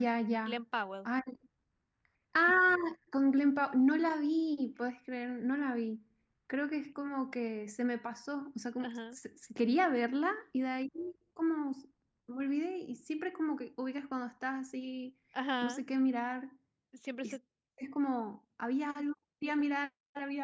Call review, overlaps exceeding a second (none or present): none